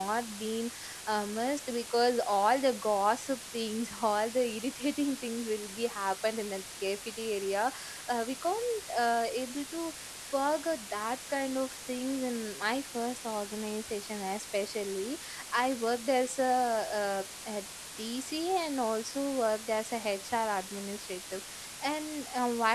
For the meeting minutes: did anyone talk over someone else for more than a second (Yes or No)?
No